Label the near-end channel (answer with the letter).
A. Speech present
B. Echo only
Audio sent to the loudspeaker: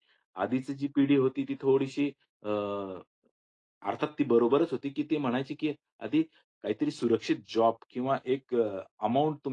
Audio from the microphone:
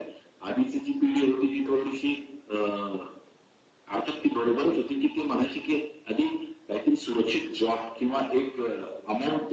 B